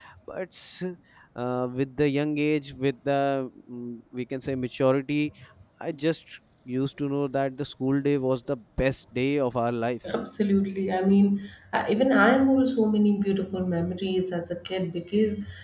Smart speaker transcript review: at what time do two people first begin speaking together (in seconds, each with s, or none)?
none